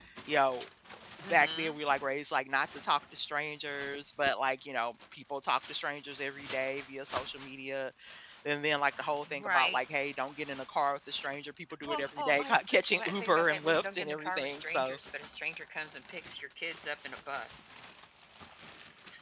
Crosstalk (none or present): present